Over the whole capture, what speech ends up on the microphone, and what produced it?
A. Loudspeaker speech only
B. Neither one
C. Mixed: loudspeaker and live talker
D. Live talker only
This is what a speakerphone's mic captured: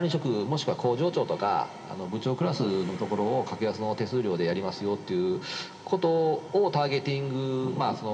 A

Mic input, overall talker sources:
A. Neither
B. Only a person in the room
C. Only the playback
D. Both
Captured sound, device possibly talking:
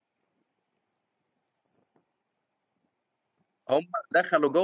B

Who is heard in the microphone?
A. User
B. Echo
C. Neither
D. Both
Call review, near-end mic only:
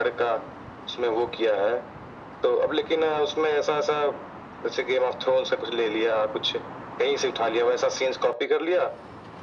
B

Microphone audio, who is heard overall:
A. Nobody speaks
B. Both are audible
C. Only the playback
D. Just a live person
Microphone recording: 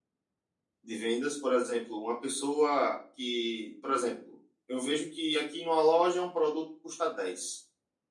D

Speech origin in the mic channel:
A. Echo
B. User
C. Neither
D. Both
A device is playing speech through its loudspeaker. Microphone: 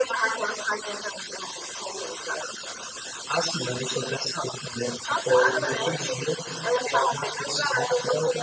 A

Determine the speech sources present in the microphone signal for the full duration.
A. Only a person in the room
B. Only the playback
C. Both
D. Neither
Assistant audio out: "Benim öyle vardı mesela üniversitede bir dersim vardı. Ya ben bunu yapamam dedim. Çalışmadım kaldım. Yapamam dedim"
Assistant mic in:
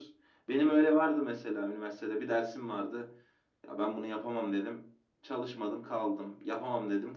B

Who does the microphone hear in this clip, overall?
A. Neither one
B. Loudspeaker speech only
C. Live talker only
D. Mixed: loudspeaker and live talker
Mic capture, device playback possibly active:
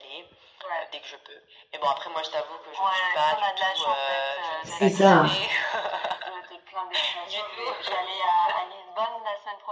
D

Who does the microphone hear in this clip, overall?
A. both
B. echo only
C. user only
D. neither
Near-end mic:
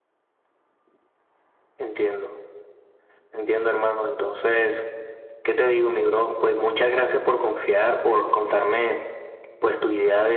B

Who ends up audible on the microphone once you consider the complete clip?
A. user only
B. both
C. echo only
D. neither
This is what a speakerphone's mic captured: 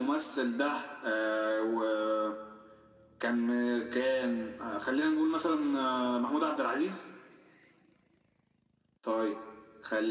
C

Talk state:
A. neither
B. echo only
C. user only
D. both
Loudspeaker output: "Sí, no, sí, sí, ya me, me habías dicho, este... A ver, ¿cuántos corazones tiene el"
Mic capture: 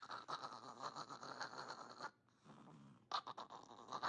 A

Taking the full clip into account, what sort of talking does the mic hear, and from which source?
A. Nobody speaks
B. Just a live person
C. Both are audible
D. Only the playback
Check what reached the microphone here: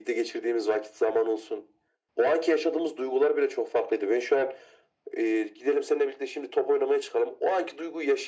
D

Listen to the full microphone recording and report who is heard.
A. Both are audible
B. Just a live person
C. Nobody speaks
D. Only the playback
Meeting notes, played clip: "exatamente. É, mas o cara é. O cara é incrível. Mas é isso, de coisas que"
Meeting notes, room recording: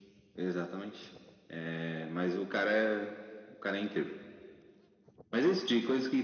D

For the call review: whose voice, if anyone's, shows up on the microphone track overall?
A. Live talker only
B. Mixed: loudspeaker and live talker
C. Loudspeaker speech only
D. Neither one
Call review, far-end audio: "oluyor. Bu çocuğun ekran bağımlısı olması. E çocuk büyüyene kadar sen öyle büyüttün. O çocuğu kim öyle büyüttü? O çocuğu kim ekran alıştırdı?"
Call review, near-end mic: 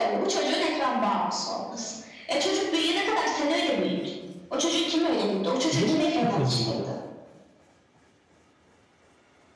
B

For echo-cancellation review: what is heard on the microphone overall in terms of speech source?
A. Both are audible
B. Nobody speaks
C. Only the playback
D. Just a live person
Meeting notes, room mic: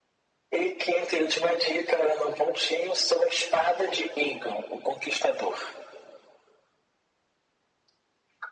C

